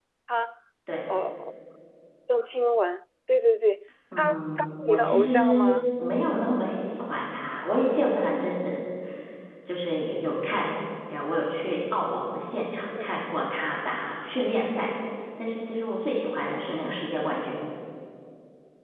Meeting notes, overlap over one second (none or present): present